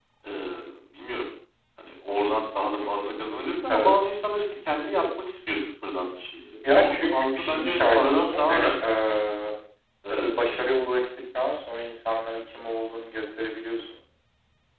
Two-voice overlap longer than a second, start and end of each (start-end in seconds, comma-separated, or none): 6.7-9.0